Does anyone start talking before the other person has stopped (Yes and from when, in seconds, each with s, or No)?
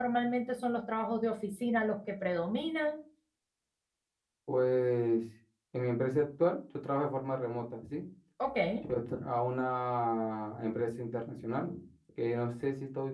No